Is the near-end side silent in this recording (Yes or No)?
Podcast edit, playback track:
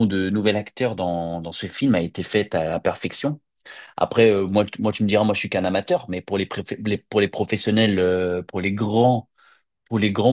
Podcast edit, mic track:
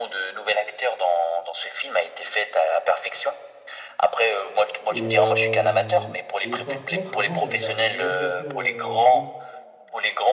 No